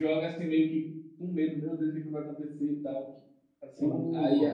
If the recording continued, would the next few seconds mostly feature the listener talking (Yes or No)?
No